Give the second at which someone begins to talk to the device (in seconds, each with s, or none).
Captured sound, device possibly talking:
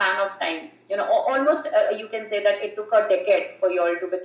none